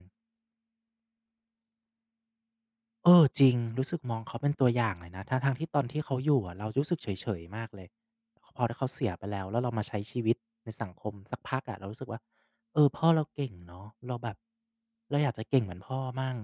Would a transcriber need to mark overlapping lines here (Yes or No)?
No